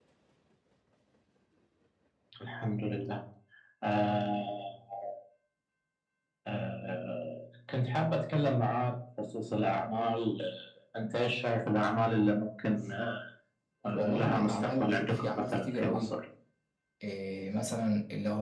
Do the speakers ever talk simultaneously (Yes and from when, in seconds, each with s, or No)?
Yes, from 14.2 s